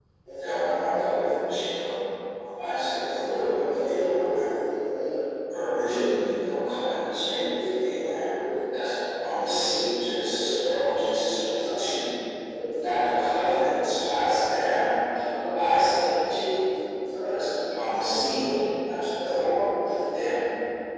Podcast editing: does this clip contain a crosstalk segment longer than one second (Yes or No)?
Yes